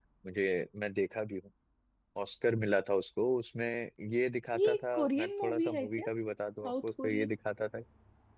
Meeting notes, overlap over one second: present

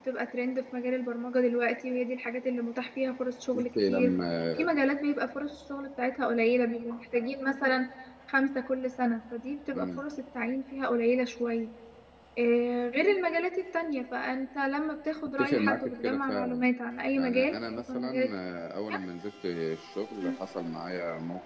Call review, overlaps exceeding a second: present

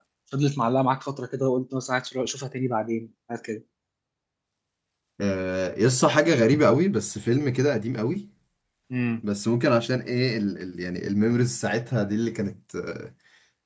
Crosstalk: none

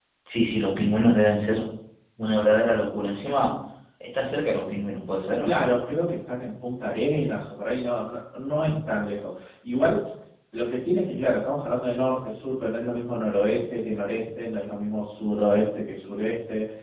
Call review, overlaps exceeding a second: none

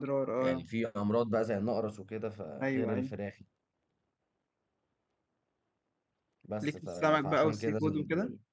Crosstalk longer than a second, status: present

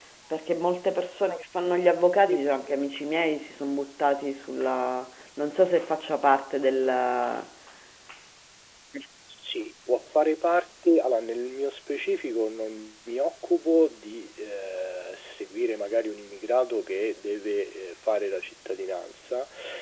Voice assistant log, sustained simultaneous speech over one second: none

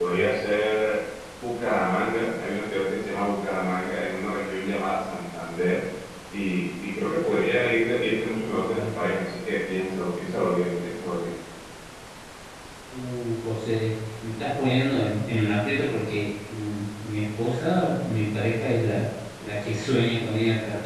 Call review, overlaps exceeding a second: none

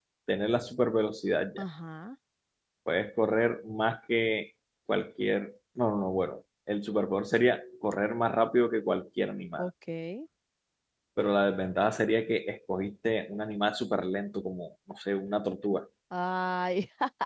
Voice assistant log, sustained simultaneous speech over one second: none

